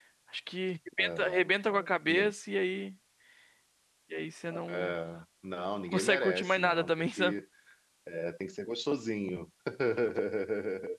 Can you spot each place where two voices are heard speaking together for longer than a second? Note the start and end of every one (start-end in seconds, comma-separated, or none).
5.9-7.3